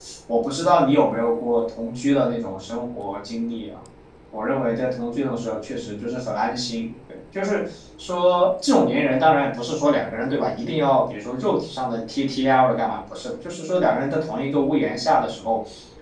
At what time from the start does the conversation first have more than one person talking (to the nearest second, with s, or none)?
none